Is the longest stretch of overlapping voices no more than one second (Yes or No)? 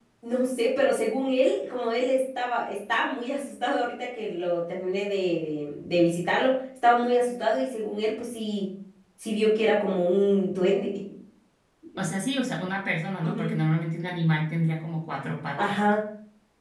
Yes